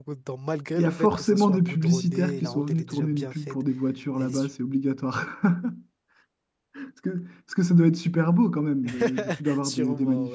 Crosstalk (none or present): present